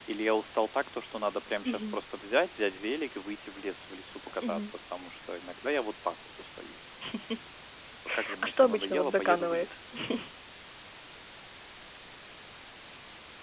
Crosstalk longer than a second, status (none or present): present